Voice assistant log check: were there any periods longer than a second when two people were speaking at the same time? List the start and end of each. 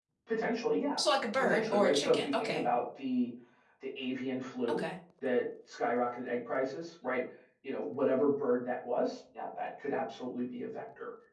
1.4-2.6

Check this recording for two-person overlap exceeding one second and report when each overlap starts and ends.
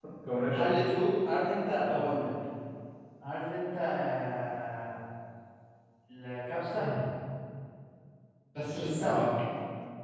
none

